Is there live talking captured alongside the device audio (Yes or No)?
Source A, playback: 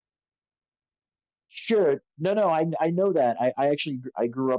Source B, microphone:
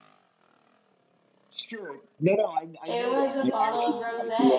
Yes